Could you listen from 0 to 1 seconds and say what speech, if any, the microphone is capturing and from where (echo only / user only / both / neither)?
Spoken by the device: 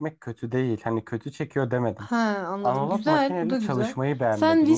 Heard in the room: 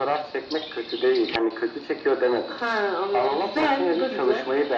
echo only